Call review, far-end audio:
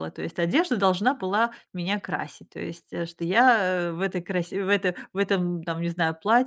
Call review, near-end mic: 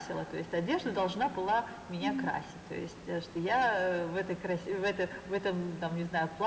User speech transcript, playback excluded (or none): Мгм.